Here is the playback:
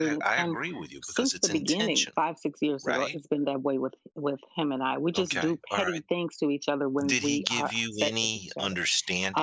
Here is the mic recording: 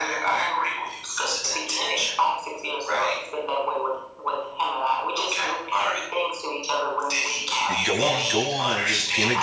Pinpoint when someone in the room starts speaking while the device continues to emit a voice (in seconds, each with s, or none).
7.7 s